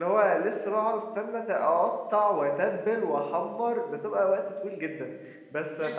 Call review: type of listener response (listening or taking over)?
taking over